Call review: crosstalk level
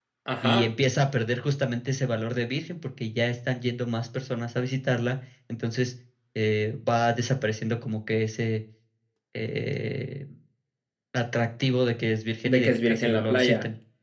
present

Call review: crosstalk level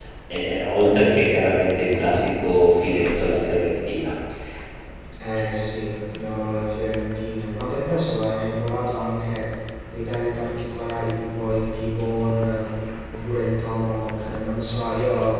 none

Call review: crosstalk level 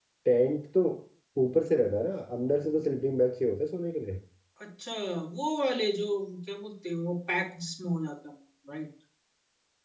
none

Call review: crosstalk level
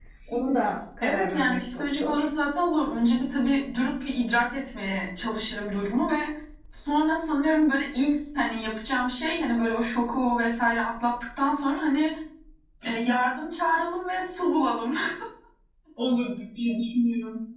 present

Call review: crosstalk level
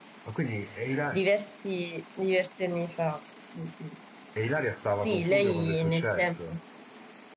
present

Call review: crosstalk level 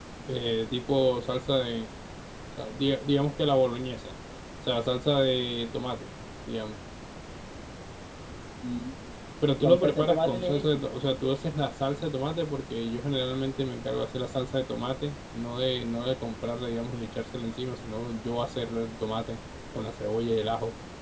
present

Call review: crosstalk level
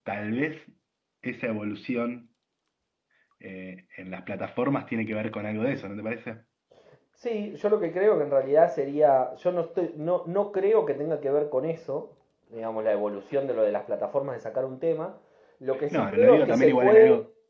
present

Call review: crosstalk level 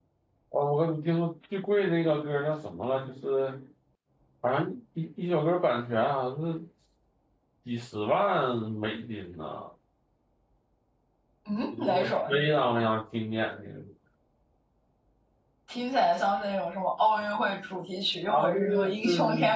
present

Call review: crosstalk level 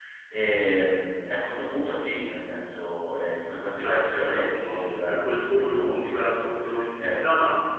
present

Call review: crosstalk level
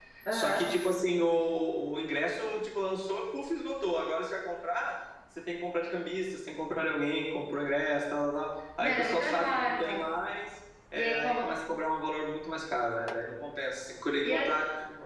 present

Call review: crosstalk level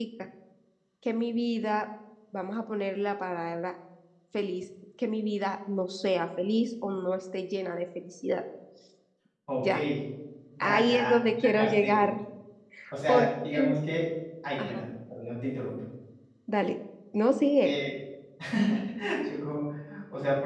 present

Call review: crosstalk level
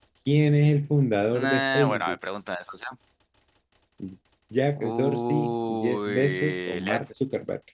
present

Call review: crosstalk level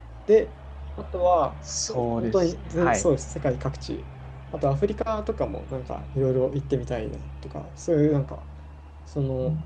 present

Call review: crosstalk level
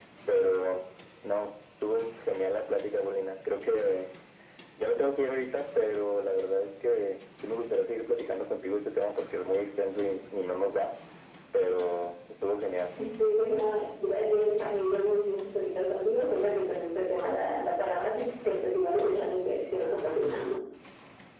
none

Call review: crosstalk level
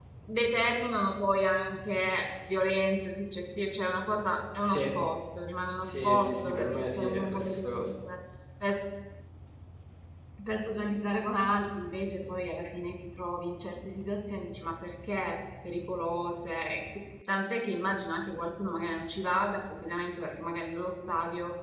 present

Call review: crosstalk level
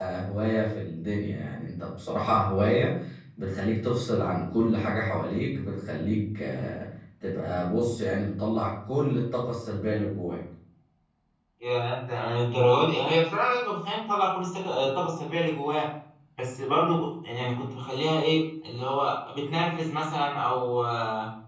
none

